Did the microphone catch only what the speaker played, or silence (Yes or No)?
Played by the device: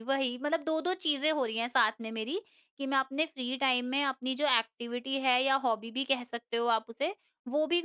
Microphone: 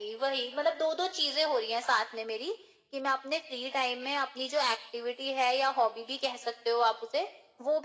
Yes